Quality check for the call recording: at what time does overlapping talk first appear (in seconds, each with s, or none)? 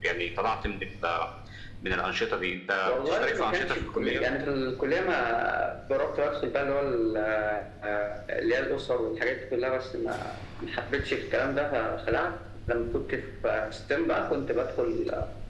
2.9 s